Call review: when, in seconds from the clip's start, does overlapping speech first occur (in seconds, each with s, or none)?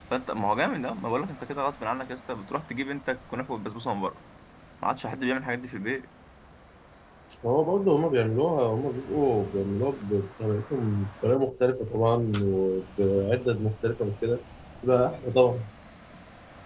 none